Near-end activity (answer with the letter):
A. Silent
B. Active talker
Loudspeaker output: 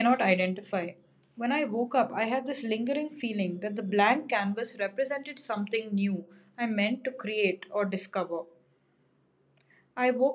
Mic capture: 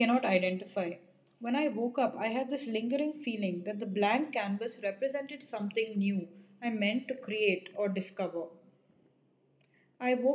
A